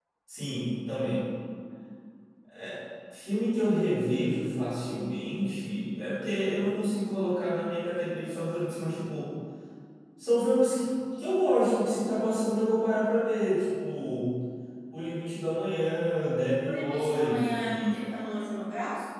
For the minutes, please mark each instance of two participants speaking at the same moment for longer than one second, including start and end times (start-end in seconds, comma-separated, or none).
16.6-17.9